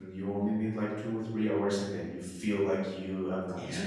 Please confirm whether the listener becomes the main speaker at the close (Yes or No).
Yes